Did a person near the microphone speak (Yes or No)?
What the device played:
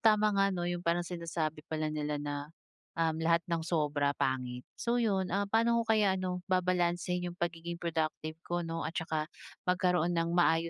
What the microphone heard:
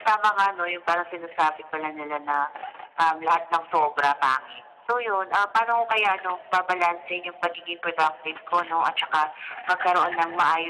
No